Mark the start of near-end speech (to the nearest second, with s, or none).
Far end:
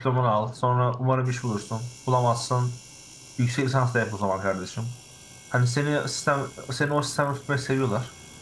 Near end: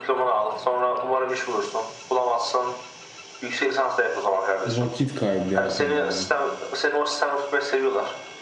5 s